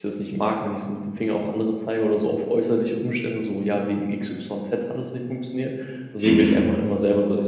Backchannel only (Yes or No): Yes